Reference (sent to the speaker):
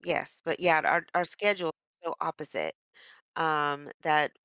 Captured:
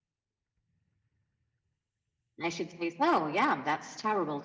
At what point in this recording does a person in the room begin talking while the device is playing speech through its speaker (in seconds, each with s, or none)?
2.4 s